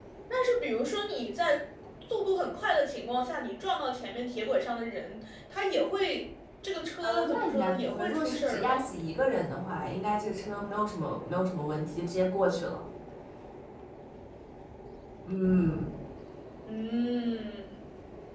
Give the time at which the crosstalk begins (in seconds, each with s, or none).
7.0 s